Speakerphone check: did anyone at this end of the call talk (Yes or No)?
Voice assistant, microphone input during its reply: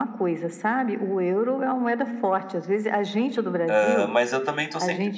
Yes